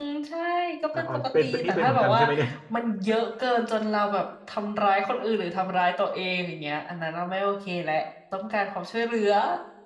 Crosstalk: present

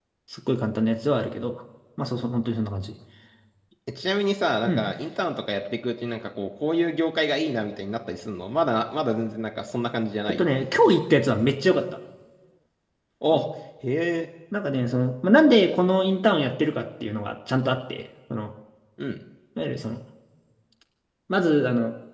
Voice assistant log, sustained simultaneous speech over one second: none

